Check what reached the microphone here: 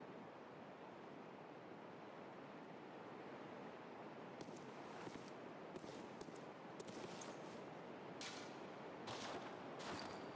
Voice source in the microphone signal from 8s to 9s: neither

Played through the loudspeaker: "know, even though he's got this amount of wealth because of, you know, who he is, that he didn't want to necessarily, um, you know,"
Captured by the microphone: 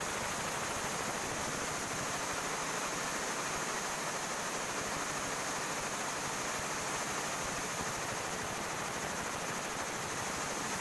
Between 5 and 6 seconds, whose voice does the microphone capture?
neither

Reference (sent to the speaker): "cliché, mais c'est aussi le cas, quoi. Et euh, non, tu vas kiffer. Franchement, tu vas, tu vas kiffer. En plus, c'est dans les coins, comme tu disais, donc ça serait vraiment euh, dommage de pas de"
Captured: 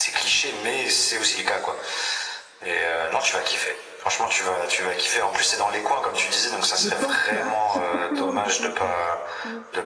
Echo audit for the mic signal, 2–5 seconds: echo only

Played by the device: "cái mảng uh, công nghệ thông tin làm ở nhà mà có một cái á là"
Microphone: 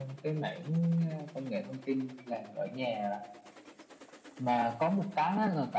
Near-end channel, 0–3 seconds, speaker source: echo only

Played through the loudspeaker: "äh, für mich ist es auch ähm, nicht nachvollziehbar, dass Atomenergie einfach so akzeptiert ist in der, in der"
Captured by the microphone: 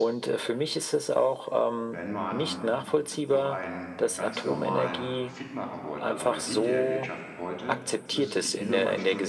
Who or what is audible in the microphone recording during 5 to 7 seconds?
both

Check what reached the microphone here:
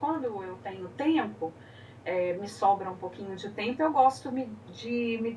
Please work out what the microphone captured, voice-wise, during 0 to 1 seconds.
user only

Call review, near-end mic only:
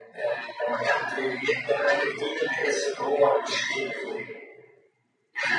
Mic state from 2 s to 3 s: echo only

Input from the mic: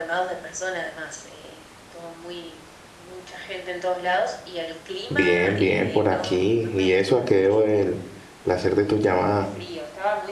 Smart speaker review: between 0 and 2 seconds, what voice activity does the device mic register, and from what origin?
echo only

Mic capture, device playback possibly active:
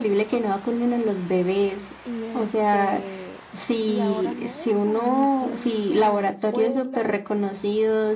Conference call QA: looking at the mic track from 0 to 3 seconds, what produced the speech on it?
both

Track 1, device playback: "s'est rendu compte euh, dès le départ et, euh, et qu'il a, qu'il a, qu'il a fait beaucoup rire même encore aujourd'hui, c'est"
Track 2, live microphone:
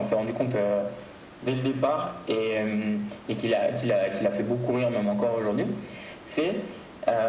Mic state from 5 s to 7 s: echo only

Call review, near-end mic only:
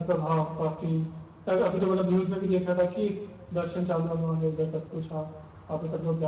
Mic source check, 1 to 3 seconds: echo only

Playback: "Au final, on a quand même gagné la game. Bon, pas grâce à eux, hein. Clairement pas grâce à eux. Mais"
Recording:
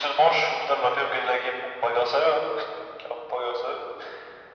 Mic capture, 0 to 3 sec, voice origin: echo only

